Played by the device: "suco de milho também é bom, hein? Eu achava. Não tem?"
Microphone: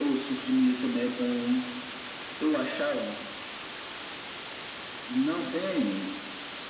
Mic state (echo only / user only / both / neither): echo only